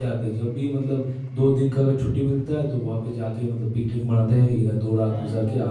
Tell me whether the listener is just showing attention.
Yes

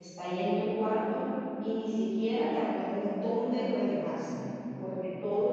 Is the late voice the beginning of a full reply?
No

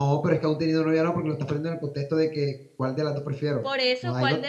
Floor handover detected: Yes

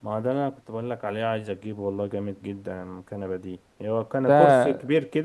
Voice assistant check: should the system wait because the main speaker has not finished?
Yes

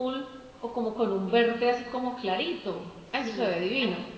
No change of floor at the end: No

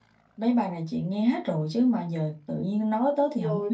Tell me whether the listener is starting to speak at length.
Yes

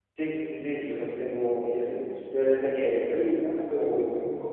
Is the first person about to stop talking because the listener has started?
Yes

